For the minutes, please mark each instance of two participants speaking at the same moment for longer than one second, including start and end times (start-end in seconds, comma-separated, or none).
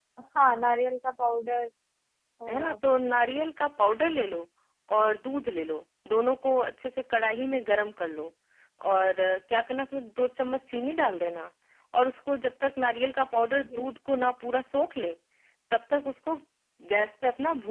none